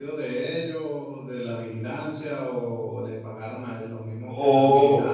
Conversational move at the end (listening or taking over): taking over